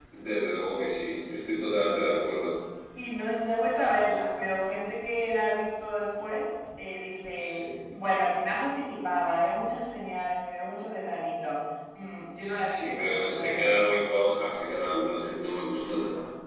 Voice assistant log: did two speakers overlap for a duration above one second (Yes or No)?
Yes